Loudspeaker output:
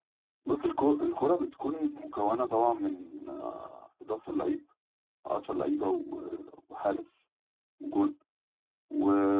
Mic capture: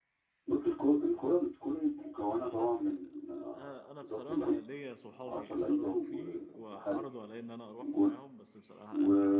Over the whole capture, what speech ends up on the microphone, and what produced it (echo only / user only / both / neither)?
both